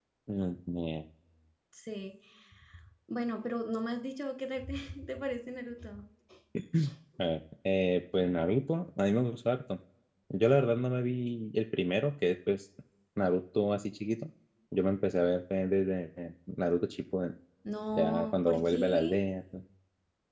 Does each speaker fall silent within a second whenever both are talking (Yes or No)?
No